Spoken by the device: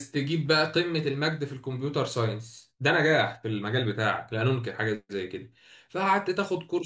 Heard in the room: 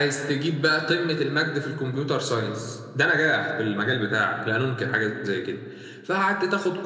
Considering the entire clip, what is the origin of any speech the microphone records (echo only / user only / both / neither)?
echo only